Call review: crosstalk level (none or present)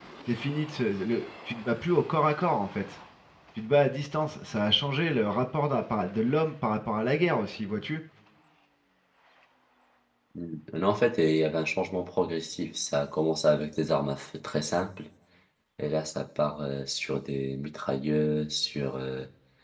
none